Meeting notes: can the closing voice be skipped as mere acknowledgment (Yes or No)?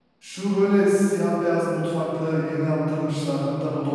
Yes